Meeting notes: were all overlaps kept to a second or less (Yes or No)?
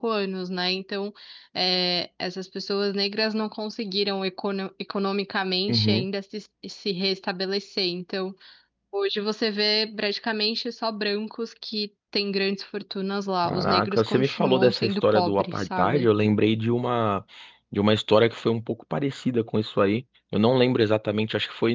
No